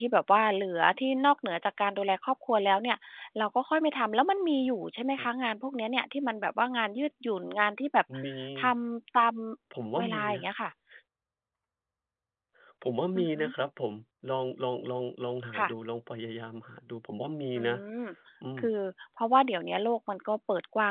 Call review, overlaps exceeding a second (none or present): none